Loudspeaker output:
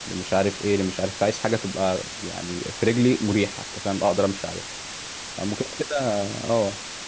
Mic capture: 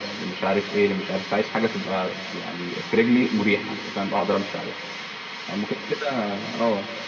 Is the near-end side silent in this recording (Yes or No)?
Yes